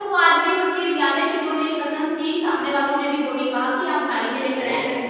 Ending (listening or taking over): taking over